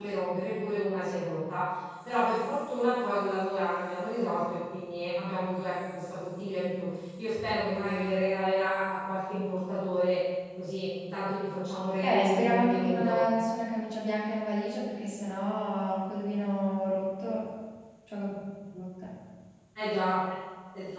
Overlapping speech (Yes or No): Yes